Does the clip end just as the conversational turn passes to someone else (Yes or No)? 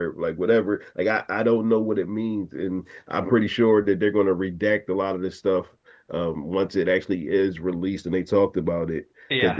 No